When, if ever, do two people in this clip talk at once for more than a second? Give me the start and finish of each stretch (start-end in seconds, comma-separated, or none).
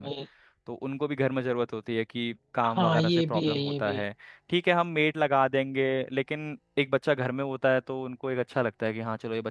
2.7-4.0